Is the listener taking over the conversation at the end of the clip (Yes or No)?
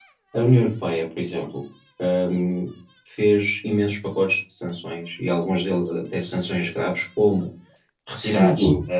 No